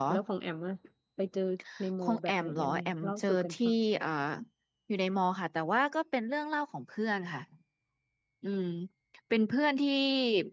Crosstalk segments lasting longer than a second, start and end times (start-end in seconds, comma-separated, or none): 2.0-3.7